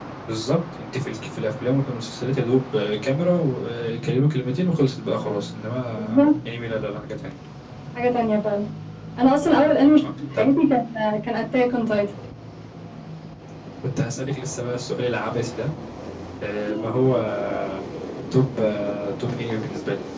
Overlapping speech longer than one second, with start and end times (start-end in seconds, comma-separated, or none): none